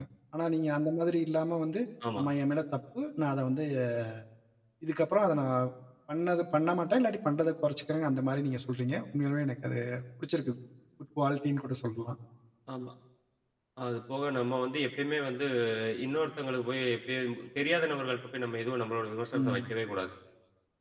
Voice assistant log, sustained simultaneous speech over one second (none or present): none